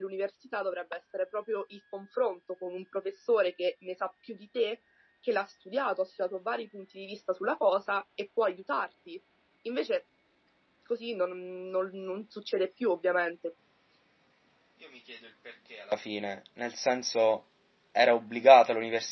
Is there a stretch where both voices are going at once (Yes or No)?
No